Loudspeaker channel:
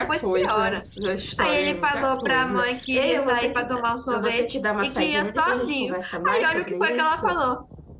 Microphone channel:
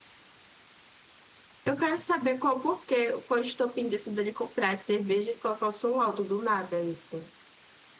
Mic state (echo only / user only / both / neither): user only